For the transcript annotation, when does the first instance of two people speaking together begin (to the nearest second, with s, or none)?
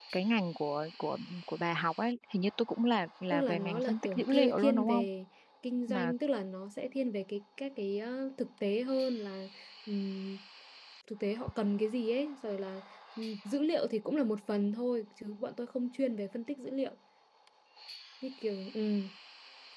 3 s